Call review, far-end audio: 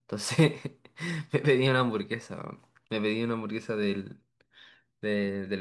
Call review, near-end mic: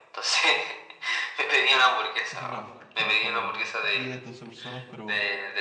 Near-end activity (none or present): present